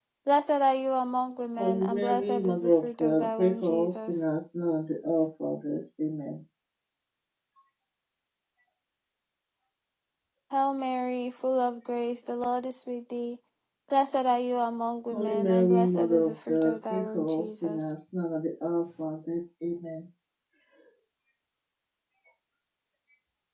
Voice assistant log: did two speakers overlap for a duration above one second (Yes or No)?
Yes